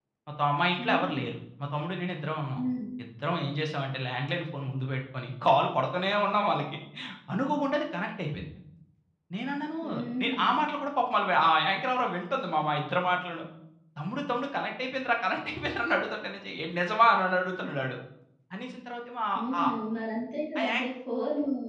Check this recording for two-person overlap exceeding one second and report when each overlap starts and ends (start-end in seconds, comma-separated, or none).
none